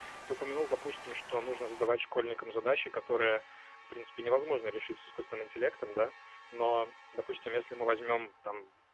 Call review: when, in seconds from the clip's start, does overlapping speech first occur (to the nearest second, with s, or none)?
none